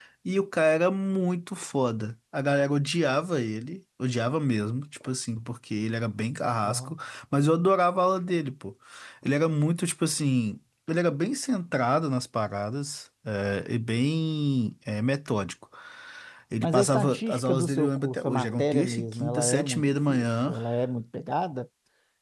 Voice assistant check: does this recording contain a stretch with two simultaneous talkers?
Yes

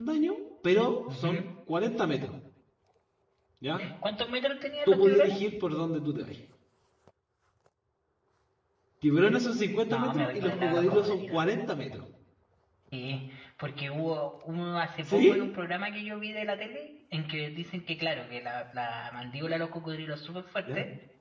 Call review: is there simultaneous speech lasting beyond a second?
Yes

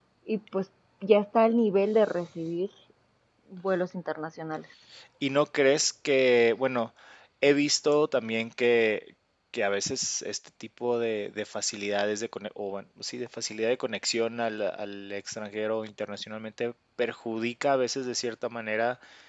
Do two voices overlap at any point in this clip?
No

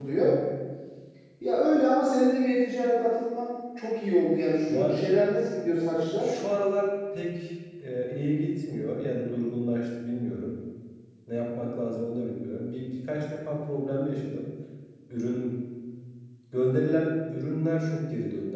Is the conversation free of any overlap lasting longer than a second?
Yes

